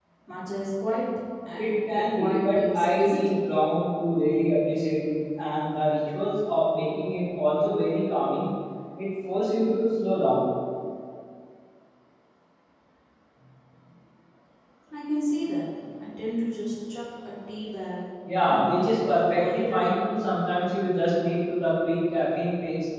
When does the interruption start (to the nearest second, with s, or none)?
2 s